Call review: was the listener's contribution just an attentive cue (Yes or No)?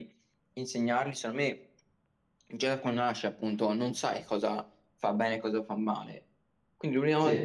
Yes